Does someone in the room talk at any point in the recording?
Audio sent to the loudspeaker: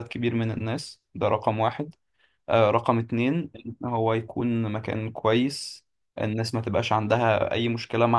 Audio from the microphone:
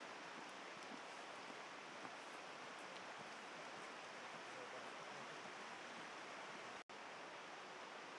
No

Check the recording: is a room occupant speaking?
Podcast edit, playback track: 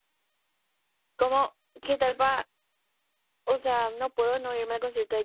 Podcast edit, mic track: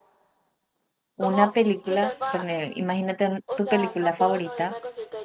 Yes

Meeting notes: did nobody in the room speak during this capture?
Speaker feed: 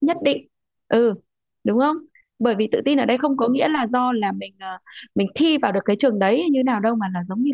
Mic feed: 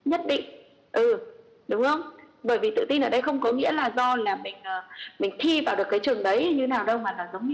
Yes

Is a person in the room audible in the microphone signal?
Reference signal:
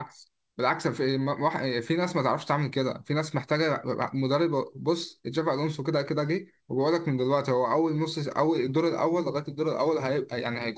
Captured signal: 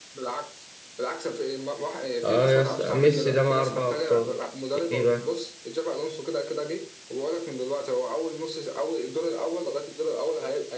Yes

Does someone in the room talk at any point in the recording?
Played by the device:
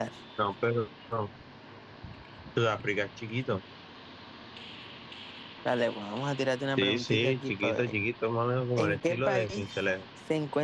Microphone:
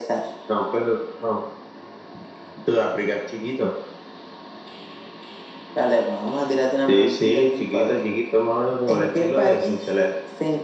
No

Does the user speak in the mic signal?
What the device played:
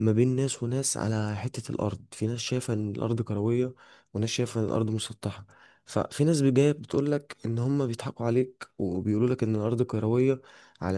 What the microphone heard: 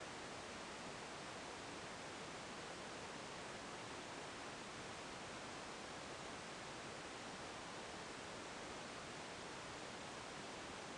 No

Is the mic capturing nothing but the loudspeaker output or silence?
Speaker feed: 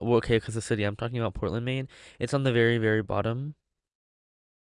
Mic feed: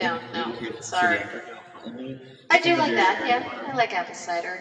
No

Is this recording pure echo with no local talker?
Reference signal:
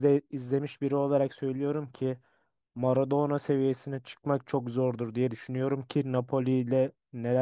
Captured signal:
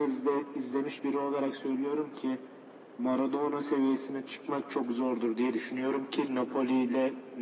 Yes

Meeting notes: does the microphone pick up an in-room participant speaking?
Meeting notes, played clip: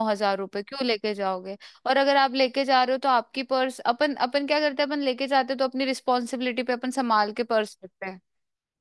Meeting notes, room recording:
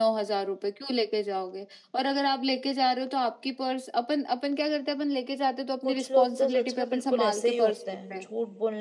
Yes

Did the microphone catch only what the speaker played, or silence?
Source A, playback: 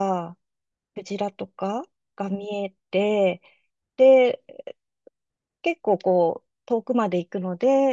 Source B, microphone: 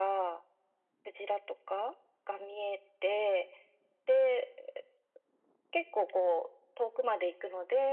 Yes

